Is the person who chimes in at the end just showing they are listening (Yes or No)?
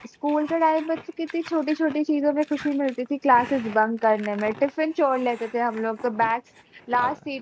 Yes